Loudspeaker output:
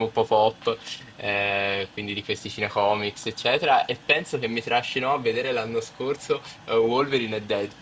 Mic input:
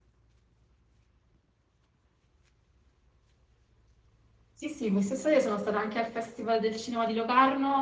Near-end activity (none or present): present